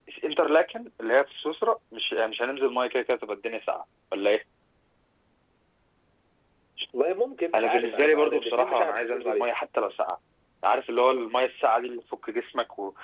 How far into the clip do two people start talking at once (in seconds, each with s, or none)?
7.6 s